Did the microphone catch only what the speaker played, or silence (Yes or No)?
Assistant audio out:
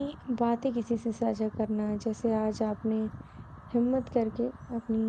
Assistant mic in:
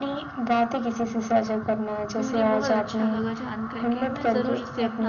No